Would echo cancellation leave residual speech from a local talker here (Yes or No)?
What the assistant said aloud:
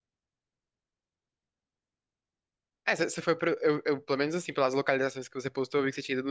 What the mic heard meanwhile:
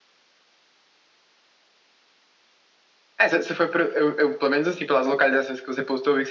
No